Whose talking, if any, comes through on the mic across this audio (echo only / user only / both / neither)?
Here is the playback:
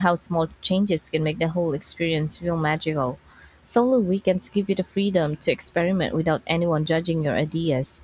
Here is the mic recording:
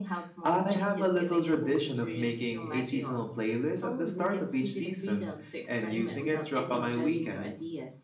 both